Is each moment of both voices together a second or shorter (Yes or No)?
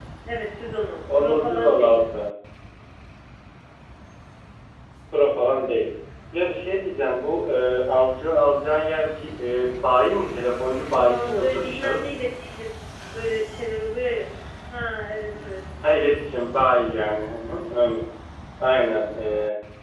No